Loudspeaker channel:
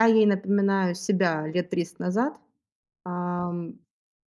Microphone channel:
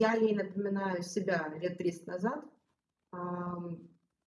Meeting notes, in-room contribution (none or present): none